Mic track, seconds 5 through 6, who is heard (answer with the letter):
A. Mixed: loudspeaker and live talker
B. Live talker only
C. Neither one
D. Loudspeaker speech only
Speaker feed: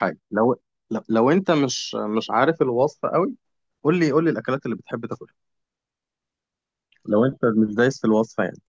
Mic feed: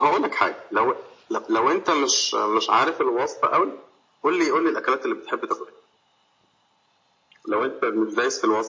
D